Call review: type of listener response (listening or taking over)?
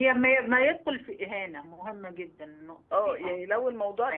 taking over